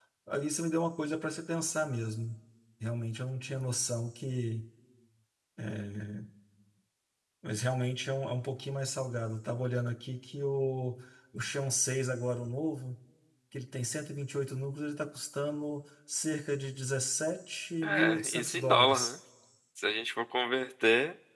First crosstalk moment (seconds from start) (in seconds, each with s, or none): 17.8 s